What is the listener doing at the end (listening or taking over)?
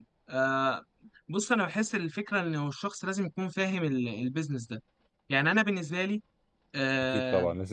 taking over